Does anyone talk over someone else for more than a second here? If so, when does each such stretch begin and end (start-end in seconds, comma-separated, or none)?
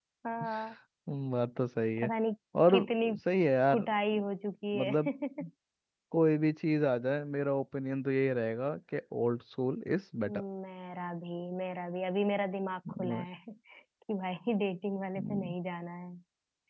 none